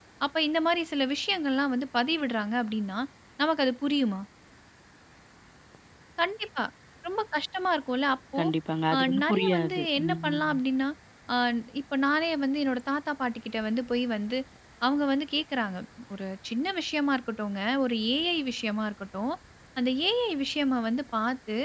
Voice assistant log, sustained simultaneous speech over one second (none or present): present